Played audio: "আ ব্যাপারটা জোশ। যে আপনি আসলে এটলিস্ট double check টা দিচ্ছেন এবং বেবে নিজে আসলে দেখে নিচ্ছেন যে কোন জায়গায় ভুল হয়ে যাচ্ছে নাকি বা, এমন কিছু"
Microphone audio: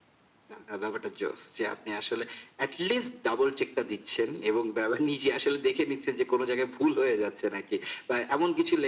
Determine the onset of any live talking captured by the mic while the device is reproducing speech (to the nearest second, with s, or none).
none